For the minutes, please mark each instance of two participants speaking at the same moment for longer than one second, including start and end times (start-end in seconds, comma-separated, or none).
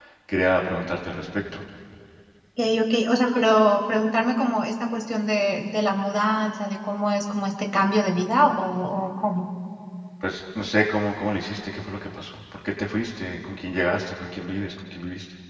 none